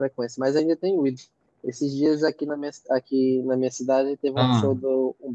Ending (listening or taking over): listening